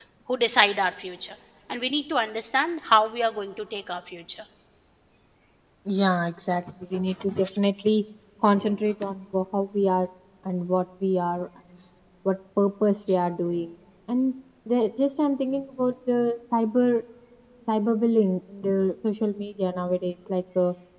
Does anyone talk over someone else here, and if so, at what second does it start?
none

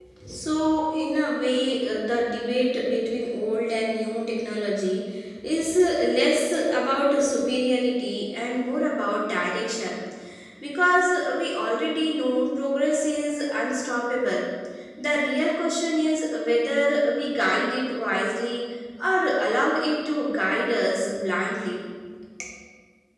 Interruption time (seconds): none

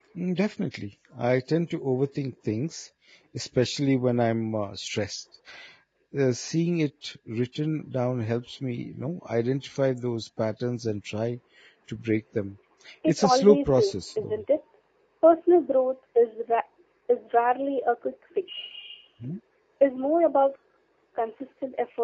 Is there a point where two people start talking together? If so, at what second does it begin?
13 s

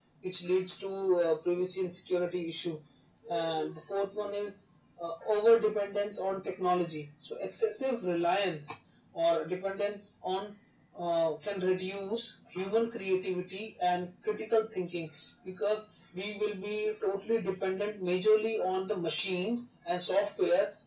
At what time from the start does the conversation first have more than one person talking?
none

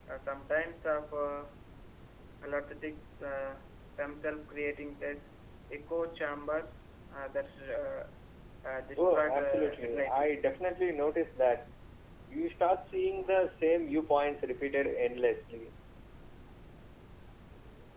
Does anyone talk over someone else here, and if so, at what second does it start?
9 s

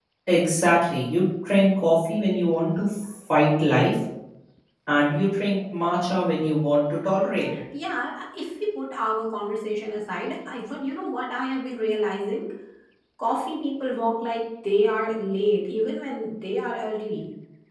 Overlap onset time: none

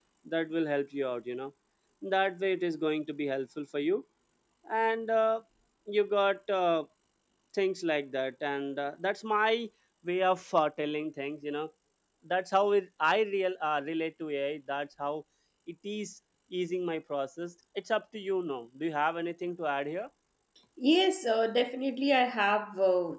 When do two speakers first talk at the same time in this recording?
none

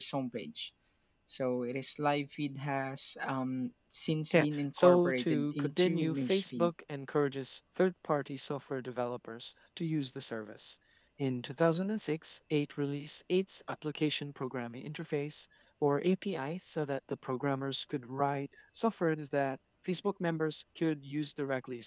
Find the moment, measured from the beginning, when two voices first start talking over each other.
4 s

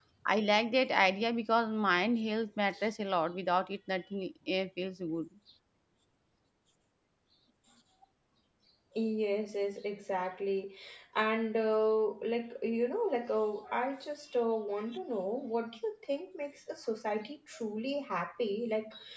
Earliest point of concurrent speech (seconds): none

